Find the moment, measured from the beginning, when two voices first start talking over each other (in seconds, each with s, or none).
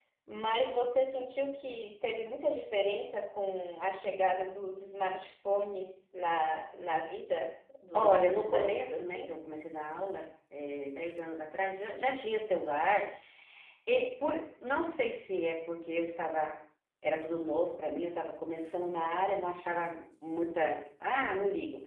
7.9 s